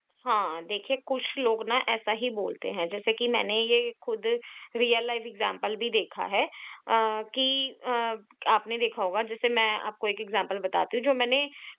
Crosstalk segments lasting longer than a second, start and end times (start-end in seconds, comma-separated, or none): none